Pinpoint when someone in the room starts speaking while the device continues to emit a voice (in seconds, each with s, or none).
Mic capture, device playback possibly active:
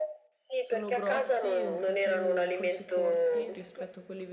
0.6 s